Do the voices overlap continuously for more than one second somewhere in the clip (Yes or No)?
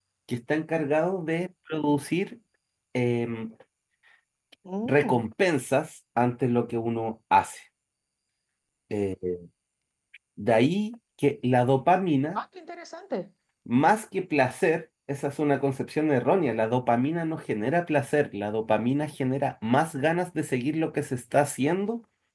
No